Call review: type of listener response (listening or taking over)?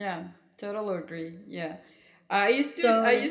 listening